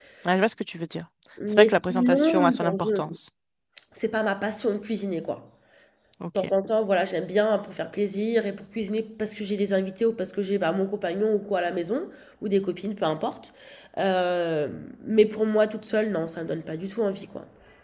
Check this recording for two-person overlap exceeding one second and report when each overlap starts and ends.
1.5-3.0

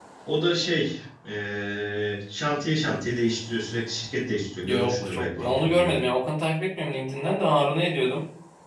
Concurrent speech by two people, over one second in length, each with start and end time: 4.6-5.9

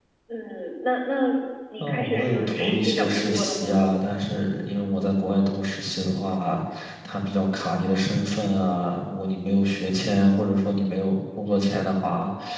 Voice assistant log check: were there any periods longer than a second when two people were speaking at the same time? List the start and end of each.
1.8-3.9

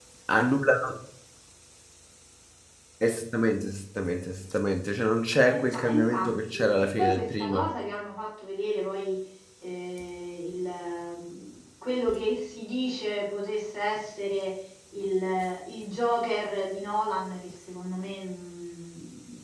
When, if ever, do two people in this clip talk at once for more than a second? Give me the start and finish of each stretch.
5.4-7.7

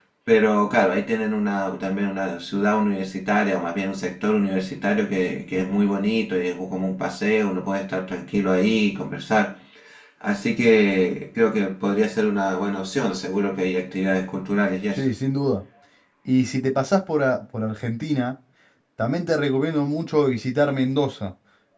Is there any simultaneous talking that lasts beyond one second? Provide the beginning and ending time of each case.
none

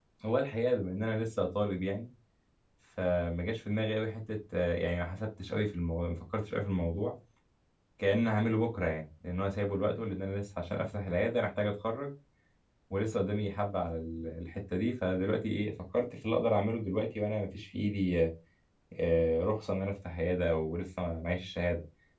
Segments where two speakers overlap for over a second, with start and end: none

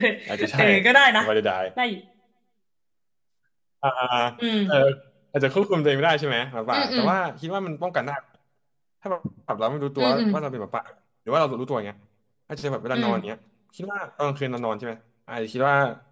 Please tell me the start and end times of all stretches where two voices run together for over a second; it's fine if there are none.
none

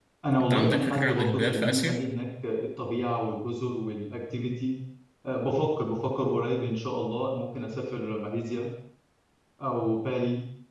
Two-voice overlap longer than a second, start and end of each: 0.5-2.0

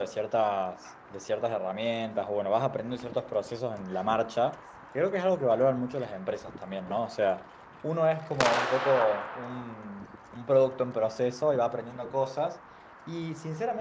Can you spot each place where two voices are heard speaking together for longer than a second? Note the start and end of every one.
none

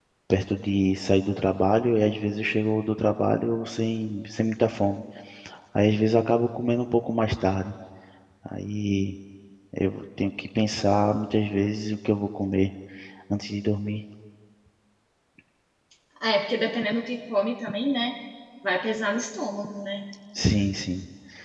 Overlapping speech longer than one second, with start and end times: none

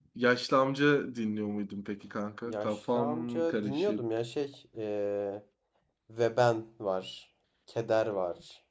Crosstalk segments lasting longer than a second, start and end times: 2.4-4.0

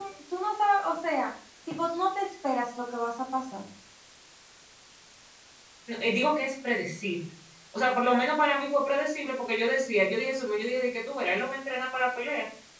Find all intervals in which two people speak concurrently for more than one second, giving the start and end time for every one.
none

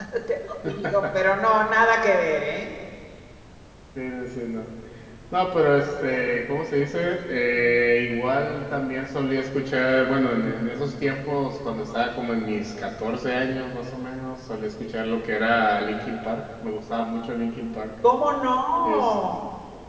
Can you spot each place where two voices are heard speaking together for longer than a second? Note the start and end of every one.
none

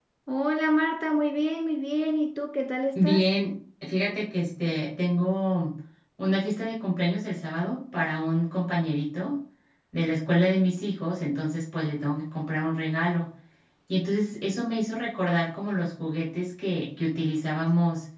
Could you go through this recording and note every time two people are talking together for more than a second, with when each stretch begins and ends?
none

